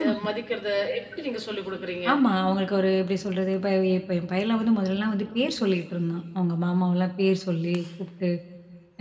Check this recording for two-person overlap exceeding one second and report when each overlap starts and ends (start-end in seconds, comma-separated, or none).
none